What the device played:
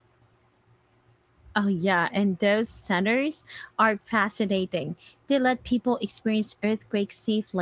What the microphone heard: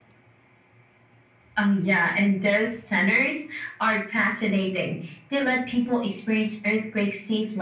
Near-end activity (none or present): none